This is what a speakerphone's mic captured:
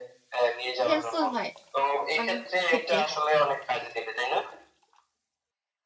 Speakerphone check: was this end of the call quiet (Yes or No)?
No